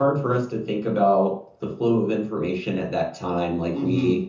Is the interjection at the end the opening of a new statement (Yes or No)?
No